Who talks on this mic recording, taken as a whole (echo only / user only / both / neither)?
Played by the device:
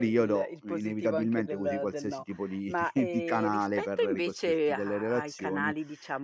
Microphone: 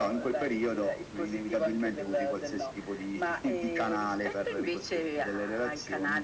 echo only